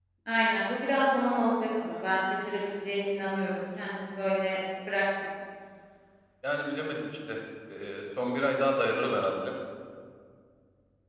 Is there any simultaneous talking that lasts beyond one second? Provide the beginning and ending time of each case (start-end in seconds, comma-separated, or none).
none